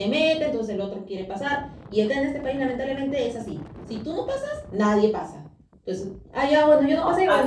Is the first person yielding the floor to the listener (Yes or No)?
No